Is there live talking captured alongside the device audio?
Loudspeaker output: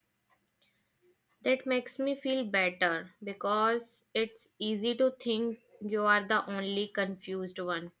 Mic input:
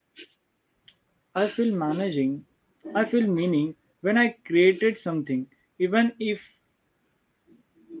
Yes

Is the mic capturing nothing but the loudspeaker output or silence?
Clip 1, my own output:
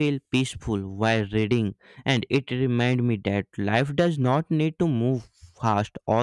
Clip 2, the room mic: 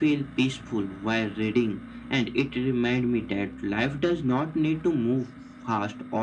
Yes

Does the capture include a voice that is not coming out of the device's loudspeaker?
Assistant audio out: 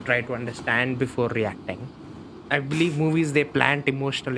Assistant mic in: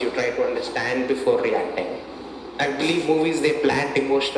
No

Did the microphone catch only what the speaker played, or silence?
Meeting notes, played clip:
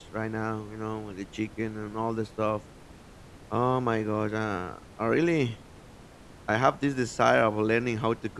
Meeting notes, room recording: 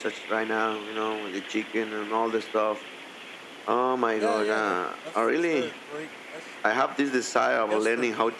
No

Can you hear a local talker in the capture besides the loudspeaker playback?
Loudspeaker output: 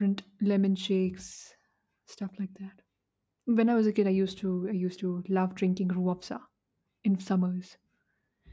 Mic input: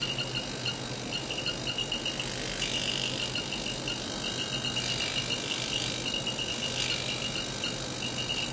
No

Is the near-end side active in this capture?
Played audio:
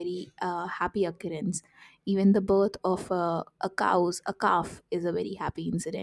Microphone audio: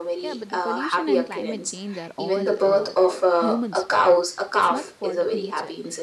Yes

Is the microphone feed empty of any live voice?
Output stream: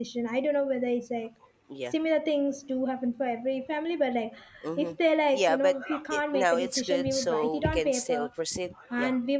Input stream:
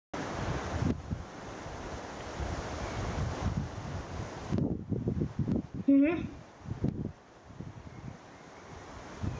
No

